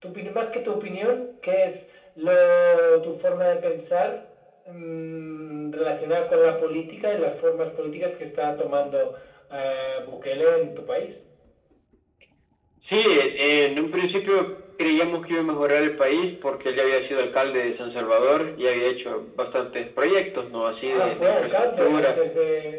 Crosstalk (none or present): present